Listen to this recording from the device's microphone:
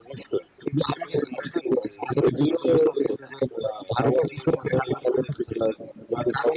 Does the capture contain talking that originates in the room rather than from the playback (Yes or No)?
No